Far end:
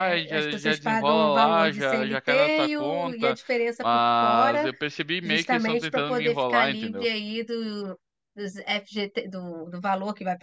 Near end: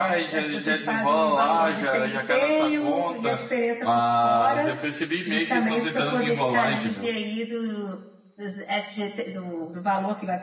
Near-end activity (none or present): none